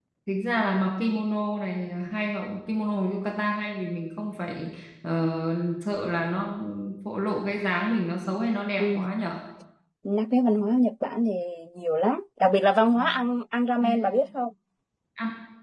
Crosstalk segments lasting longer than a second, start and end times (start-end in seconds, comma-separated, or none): none